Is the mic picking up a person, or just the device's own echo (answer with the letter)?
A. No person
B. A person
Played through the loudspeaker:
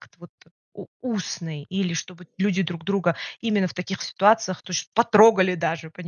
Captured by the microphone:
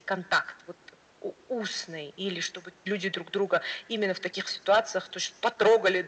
A